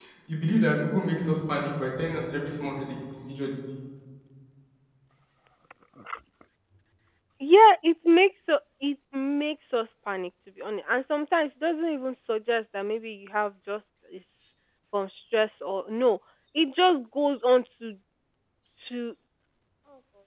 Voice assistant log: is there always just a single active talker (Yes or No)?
Yes